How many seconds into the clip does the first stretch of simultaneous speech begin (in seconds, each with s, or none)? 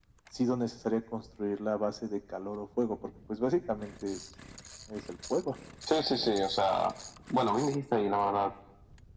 none